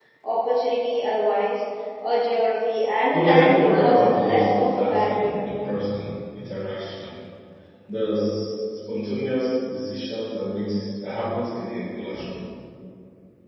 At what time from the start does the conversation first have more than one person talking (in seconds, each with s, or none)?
3.1 s